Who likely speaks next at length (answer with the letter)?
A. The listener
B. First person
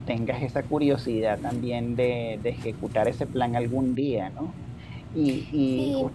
B